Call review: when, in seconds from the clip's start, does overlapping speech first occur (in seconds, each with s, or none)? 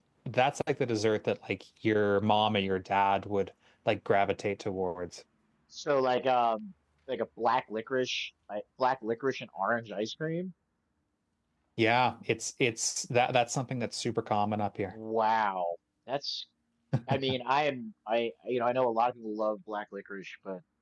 none